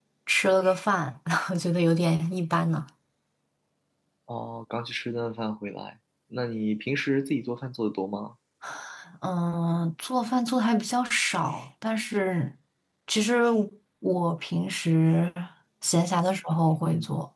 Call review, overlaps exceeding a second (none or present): none